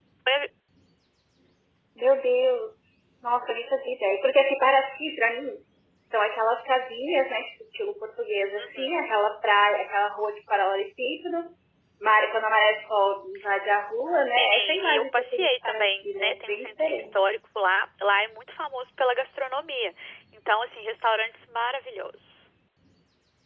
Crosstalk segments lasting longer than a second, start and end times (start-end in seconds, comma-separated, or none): 14.2-17.2